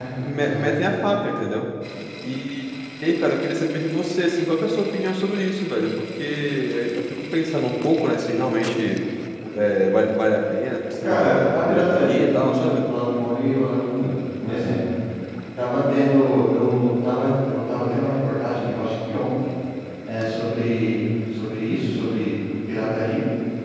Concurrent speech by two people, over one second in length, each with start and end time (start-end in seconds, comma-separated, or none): 11.0-12.8